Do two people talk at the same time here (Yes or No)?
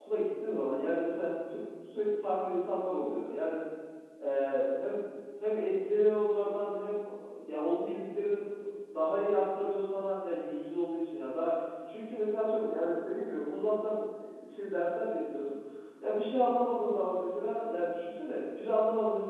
No